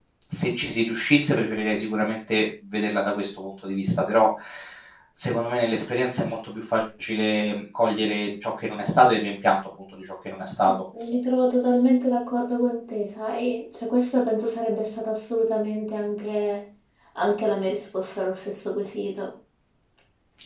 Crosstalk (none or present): none